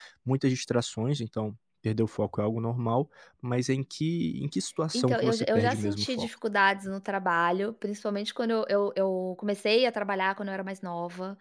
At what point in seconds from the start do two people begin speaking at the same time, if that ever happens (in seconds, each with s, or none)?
4.9 s